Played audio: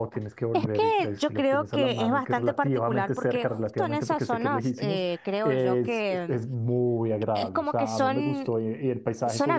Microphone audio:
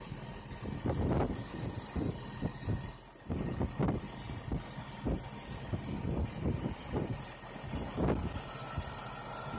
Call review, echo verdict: none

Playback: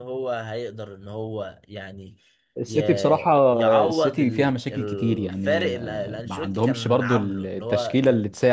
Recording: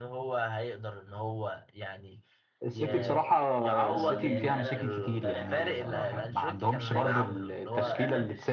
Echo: present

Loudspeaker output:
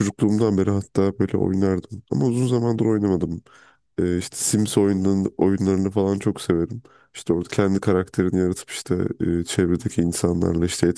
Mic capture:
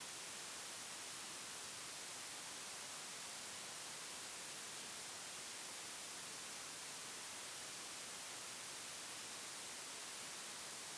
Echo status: none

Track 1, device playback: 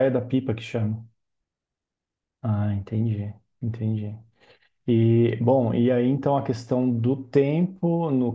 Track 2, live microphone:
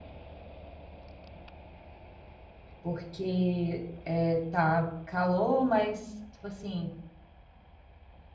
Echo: none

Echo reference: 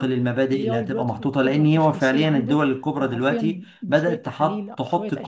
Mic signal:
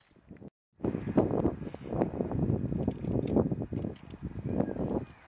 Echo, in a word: none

